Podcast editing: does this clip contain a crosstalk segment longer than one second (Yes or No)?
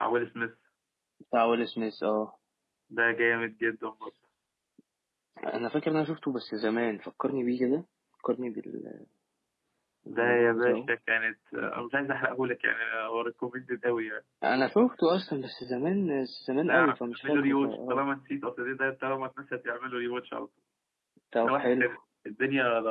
Yes